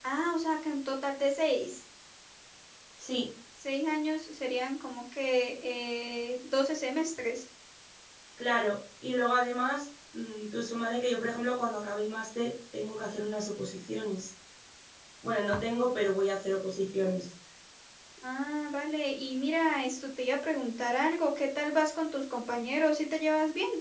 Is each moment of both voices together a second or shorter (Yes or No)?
Yes